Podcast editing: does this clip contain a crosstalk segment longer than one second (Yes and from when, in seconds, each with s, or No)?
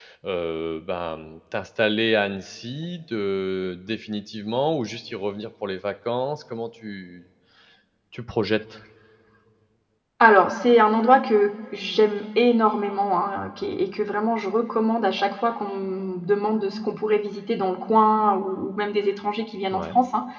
No